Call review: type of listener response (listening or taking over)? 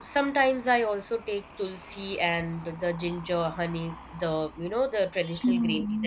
taking over